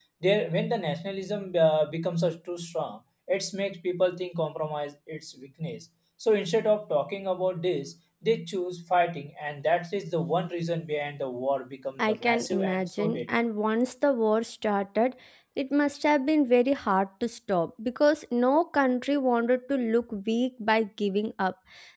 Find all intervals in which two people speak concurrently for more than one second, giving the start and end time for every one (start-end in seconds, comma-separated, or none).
12.0-13.3